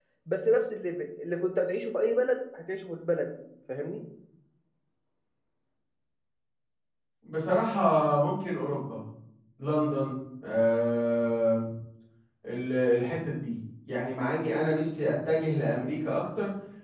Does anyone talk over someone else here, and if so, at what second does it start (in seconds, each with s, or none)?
none